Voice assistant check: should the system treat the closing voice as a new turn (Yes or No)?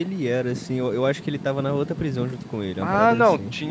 Yes